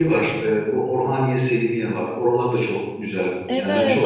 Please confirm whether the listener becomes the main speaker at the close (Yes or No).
Yes